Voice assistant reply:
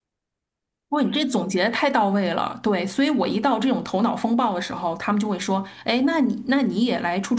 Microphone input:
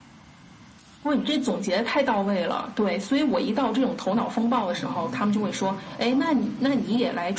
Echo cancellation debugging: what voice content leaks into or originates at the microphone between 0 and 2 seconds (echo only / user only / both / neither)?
echo only